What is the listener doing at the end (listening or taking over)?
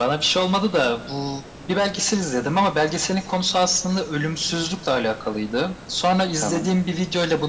listening